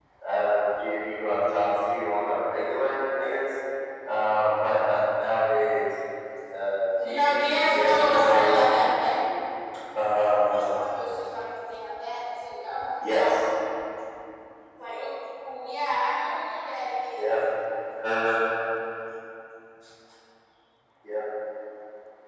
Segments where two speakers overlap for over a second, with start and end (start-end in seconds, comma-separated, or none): 7.0-8.6